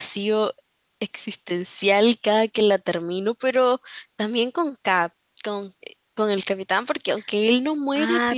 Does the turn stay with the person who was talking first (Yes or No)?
No